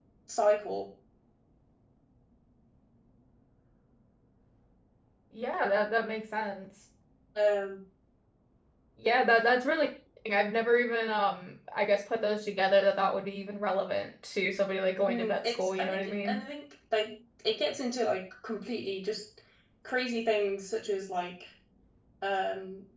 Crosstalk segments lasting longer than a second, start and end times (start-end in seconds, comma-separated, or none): 15.1-16.4